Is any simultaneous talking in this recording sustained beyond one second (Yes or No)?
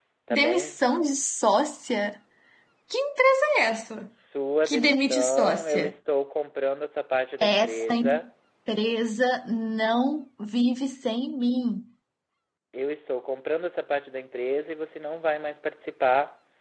Yes